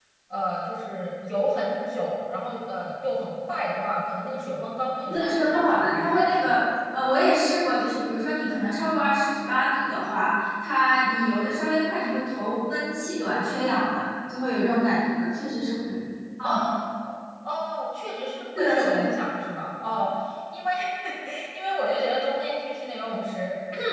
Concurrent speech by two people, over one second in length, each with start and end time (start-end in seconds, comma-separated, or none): 5.1-6.6